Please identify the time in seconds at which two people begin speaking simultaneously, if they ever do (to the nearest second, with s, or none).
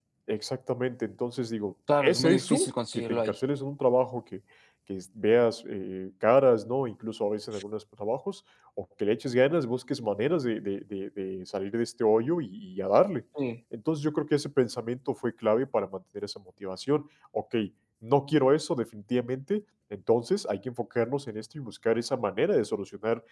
2 s